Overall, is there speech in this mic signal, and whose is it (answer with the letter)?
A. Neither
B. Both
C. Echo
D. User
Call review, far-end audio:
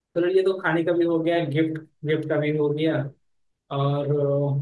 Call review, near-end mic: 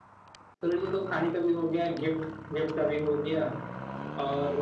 C